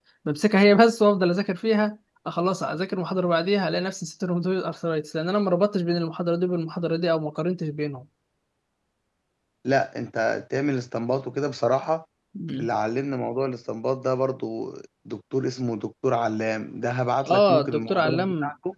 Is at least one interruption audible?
Yes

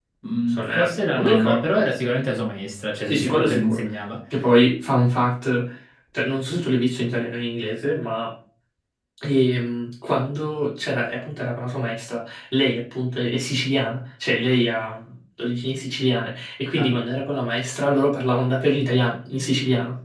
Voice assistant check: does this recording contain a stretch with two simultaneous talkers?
Yes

